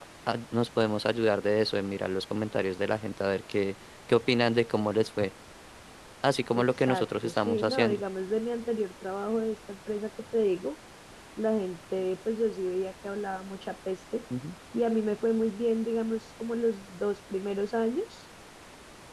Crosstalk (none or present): present